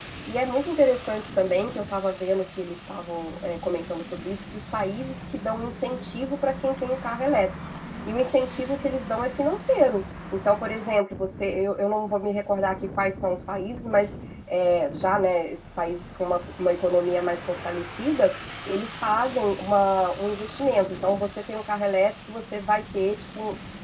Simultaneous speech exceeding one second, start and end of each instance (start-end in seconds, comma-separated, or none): none